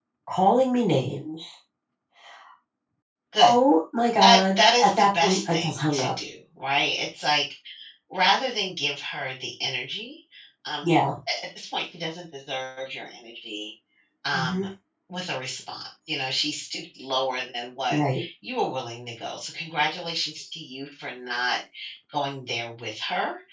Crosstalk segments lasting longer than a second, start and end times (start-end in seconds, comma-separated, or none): 4.2-6.1